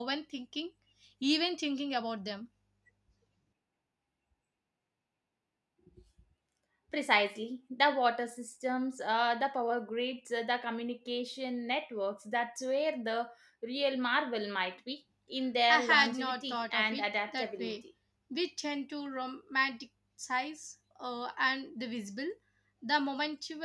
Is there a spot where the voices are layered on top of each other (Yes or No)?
Yes